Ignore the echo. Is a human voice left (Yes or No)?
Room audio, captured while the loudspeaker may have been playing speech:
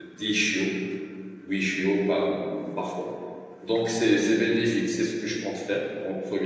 Yes